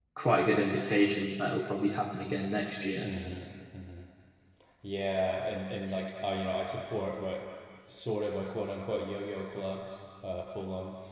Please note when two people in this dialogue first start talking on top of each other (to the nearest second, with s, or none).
none